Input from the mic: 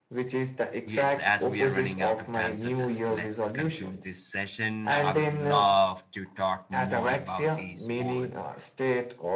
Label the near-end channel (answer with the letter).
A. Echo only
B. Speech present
B